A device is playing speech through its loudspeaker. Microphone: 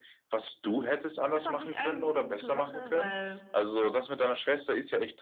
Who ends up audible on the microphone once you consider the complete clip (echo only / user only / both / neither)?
both